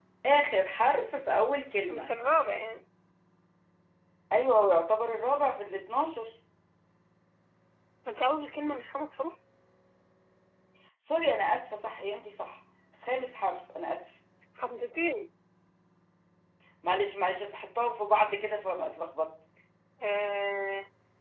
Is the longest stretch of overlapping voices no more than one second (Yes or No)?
Yes